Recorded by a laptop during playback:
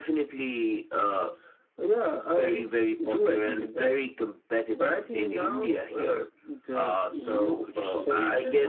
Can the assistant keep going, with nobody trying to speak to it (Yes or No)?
No